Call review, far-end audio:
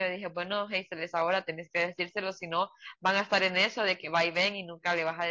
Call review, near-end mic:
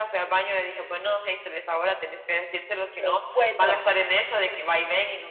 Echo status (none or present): present